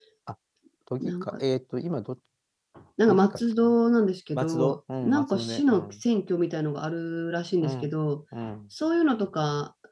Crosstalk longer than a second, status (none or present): present